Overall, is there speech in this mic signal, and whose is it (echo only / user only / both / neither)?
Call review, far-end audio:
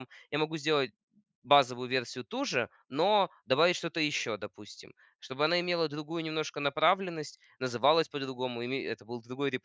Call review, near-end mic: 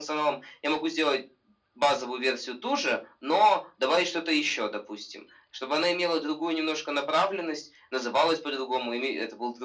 echo only